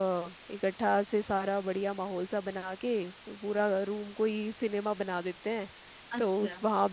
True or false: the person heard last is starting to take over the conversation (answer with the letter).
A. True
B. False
B